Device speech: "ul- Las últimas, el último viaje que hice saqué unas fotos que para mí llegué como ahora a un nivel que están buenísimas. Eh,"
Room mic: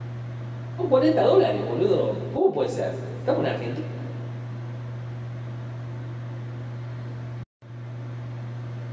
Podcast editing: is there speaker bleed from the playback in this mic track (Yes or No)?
No